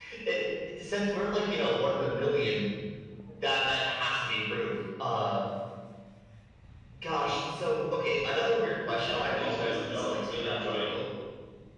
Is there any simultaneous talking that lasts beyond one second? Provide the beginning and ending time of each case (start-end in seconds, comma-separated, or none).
9.1-10.9